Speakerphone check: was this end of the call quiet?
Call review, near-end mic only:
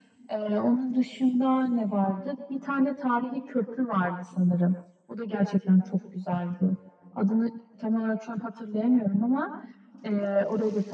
Yes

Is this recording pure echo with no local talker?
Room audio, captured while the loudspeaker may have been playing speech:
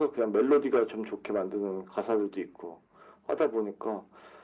Yes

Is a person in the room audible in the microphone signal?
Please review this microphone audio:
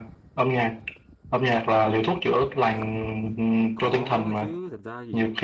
Yes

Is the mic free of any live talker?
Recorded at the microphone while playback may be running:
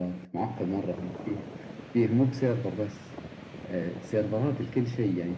Yes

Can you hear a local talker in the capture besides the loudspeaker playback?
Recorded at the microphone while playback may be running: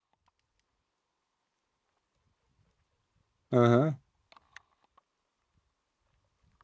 Yes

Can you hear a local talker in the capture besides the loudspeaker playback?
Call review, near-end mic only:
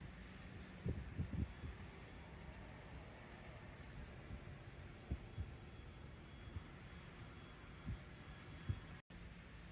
No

